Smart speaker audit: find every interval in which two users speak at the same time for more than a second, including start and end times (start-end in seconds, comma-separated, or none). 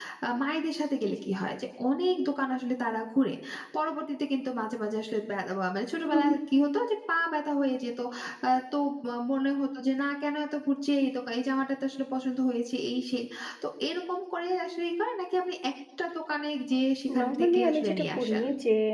17.2-18.4